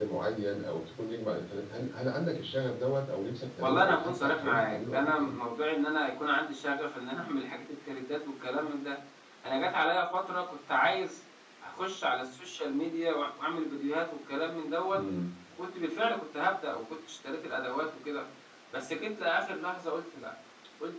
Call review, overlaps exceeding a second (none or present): present